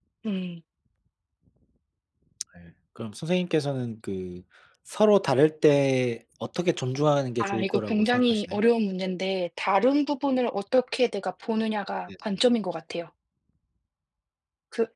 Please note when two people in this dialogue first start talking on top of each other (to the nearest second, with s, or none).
7 s